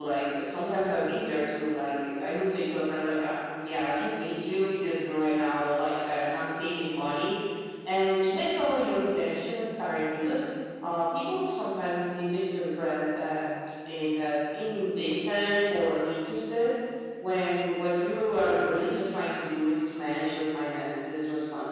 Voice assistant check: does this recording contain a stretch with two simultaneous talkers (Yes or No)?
No